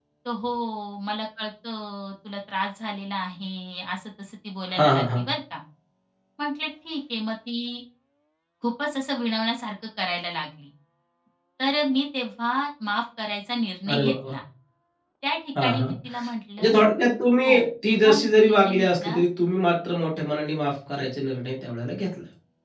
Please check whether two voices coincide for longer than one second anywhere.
Yes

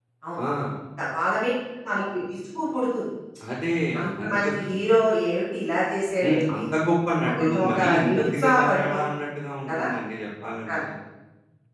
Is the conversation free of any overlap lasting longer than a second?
No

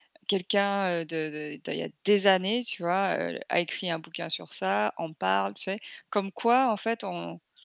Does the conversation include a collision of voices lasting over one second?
No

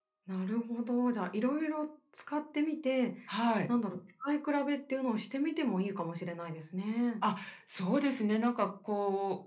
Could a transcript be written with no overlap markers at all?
Yes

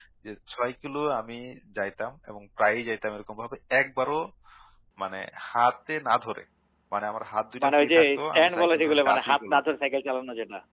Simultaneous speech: Yes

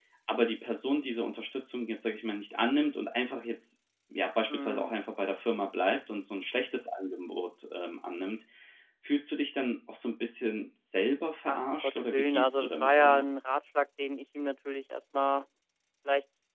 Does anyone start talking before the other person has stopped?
Yes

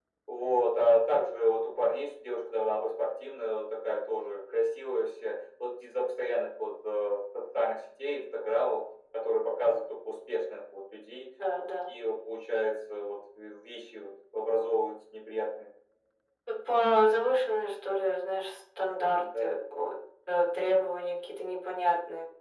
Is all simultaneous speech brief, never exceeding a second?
Yes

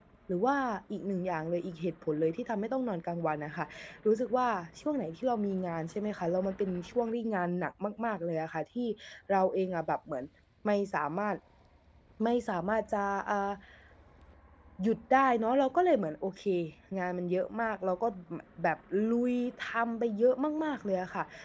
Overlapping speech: No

